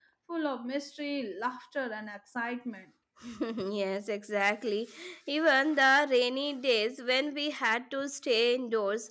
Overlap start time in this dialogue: none

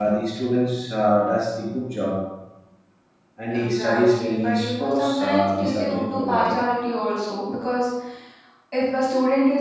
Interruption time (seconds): 4 s

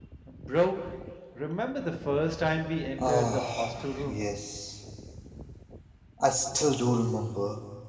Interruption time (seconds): 3 s

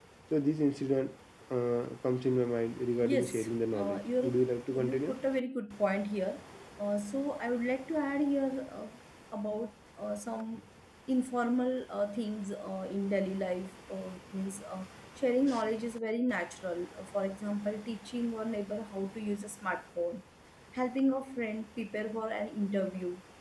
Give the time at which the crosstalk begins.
3 s

